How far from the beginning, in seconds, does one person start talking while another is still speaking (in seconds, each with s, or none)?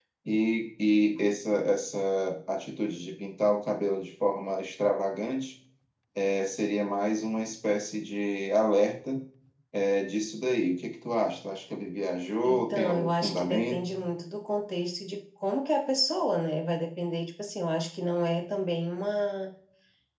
12.4 s